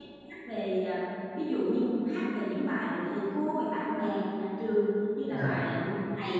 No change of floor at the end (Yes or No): Yes